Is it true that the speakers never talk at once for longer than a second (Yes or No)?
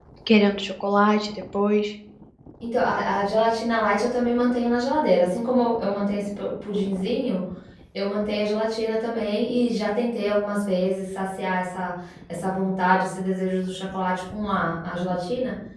Yes